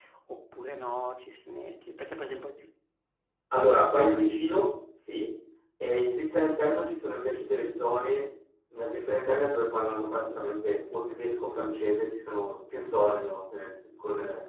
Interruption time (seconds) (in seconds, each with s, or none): none